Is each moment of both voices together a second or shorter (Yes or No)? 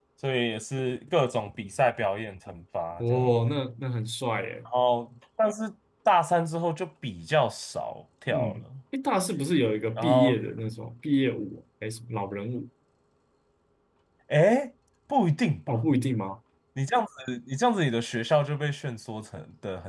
Yes